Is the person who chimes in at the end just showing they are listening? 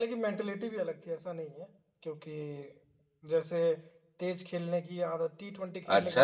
No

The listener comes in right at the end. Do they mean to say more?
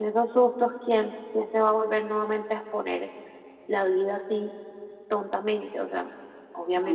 Yes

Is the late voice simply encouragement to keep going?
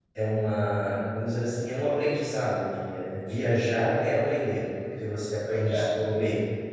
Yes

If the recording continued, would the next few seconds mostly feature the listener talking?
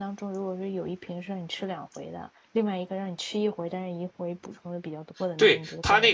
Yes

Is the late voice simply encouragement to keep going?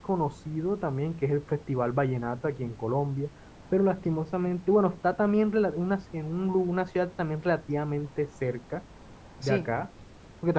Yes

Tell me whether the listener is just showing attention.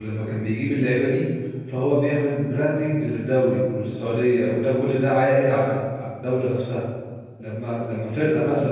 Yes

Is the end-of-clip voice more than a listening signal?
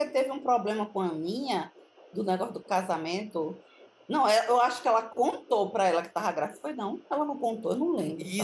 Yes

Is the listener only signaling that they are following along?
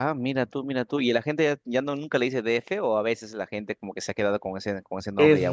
No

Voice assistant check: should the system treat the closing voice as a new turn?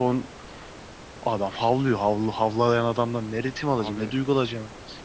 No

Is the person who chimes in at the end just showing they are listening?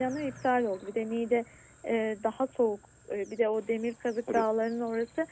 Yes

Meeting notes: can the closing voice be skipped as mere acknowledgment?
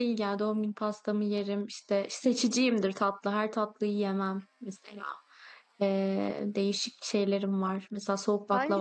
No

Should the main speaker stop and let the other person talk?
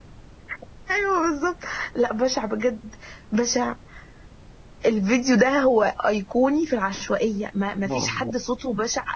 No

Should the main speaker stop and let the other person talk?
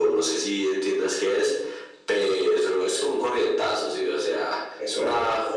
Yes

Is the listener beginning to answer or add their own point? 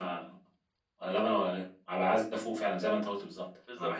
Yes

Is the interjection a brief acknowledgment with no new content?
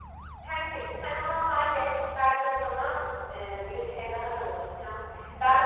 Yes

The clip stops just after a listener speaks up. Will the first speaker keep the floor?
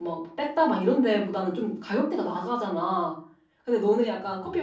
Yes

